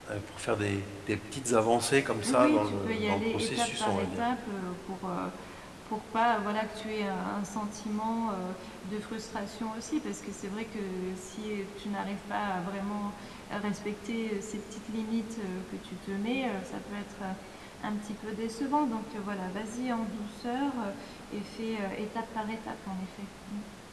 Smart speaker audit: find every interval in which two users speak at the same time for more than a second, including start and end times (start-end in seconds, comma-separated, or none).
2.3-4.3